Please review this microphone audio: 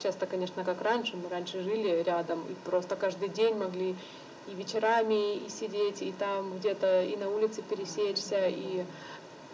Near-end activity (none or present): present